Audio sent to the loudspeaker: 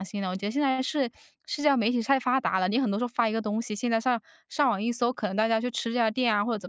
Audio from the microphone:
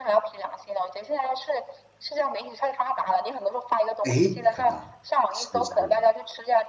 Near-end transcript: 哎，看到，是是，

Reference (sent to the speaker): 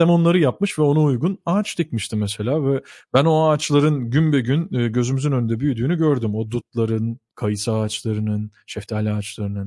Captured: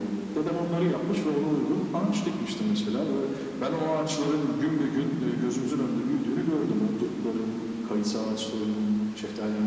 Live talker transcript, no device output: none

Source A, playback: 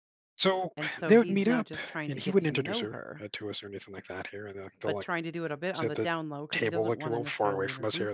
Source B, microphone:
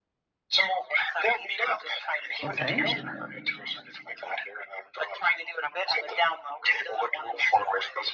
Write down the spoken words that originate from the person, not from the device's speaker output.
Okay.

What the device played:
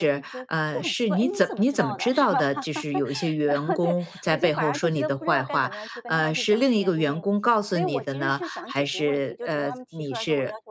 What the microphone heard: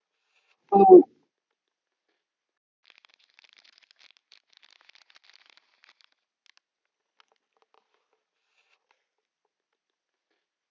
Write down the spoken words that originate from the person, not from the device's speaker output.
嗯

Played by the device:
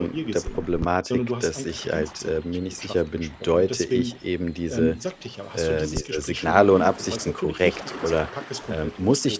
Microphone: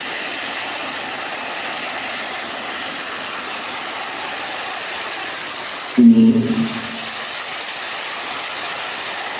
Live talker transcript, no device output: Mhm.

